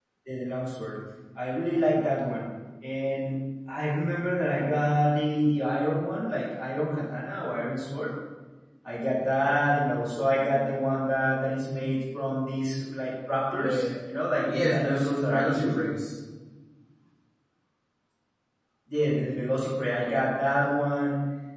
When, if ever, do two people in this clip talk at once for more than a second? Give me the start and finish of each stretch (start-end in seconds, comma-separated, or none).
14.5-15.8